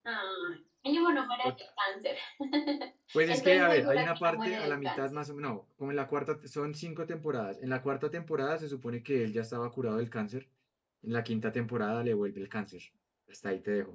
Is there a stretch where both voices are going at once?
Yes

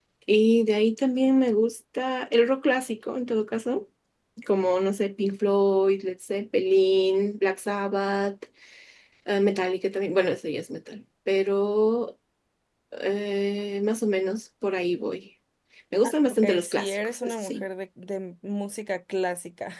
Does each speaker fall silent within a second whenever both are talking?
No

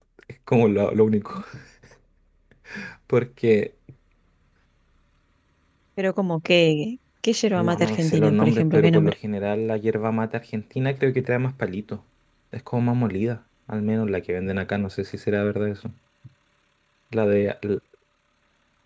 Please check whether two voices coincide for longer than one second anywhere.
Yes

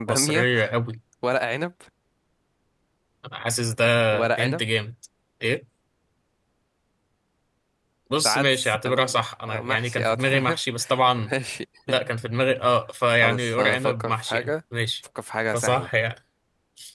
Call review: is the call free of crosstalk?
No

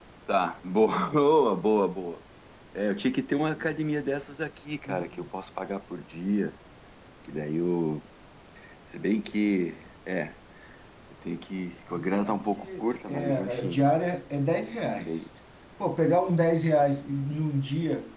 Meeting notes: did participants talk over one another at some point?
Yes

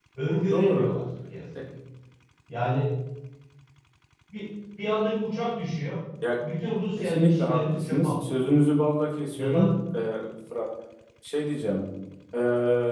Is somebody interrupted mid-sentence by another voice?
Yes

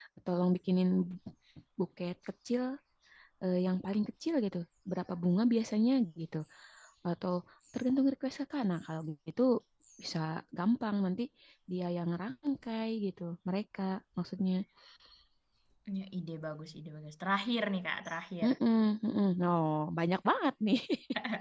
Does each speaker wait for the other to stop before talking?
Yes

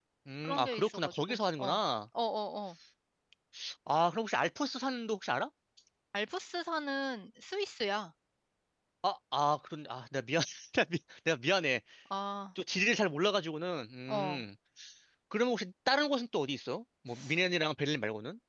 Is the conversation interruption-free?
No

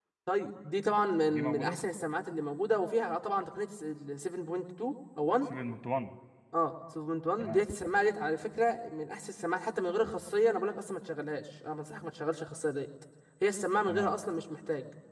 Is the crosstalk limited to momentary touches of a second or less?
Yes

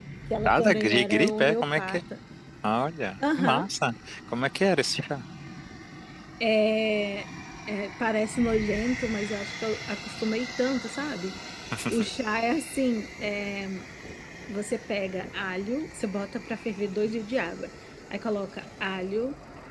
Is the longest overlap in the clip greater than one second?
Yes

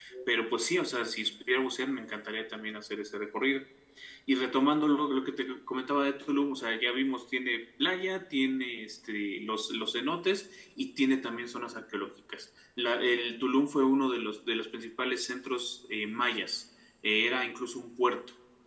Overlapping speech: No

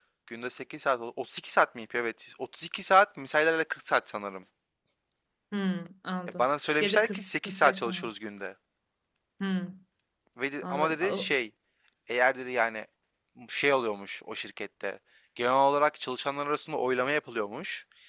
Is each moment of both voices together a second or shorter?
No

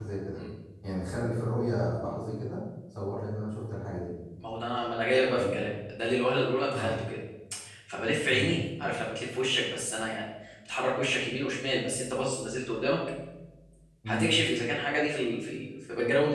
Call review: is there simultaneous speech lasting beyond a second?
No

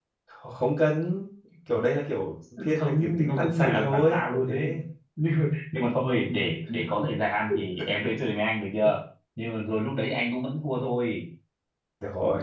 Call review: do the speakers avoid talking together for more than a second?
No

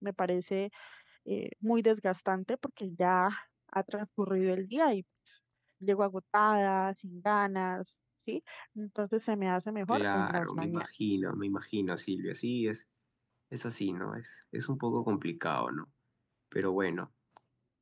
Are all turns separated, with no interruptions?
No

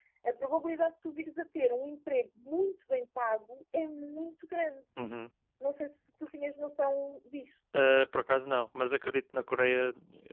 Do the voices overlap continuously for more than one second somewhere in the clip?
No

